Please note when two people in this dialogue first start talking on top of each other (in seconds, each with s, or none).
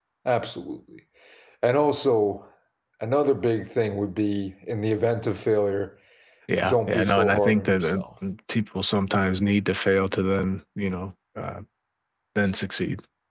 6.7 s